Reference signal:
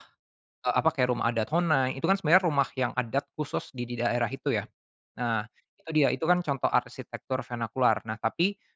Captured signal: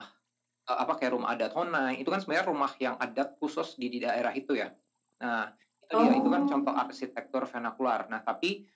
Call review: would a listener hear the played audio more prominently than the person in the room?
No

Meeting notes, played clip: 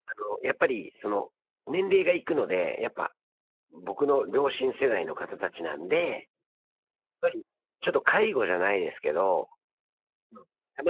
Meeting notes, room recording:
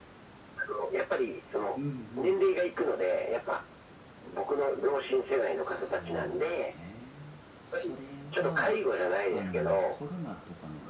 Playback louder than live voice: Yes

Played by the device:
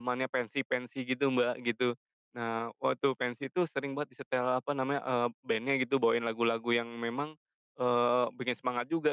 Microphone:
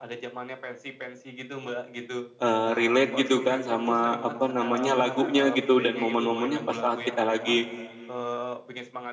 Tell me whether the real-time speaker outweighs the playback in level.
Yes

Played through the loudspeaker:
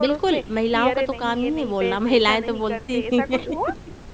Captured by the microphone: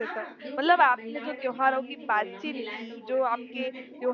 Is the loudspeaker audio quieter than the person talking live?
Yes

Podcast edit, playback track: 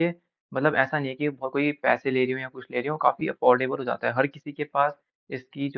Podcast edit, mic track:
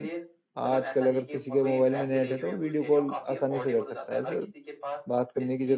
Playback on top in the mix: No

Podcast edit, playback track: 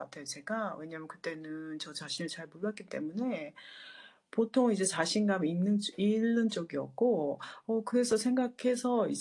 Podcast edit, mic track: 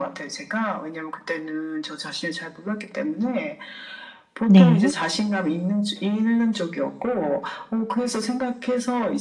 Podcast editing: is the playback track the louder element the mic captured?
No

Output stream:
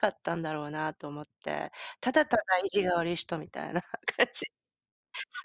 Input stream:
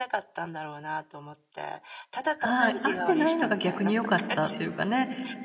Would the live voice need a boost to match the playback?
No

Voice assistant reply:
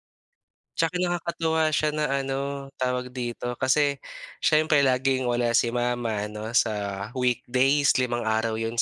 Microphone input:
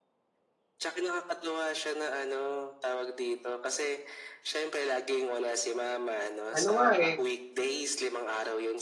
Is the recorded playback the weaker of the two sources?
Yes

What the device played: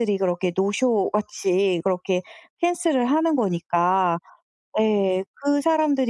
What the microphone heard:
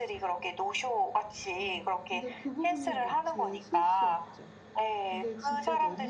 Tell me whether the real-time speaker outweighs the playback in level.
No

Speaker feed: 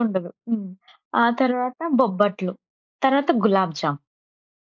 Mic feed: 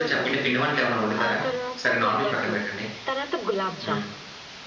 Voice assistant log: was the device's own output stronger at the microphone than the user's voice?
No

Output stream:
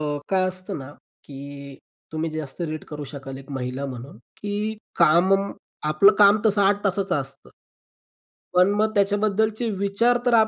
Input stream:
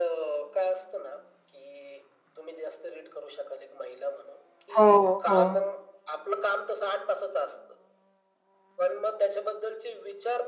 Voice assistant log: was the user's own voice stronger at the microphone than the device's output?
Yes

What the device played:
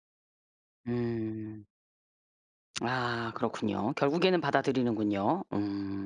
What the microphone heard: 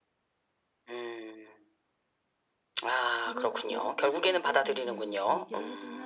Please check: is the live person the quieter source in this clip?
Yes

